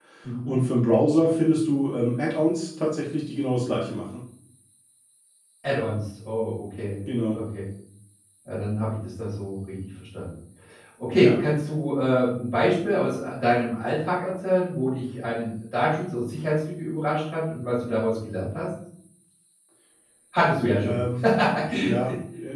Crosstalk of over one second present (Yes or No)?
No